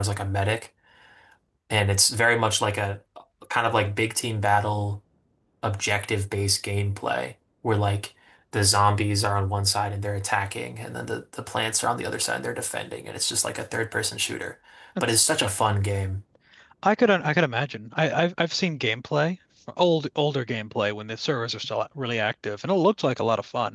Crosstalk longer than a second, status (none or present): none